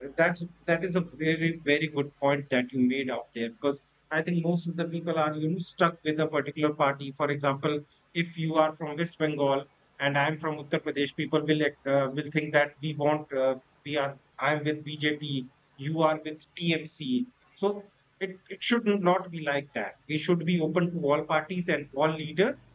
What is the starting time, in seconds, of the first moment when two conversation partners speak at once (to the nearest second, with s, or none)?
none